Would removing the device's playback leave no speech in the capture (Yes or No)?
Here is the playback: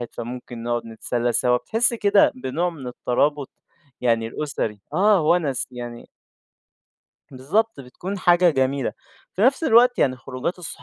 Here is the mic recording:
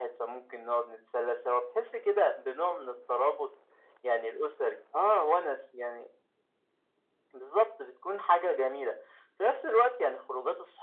Yes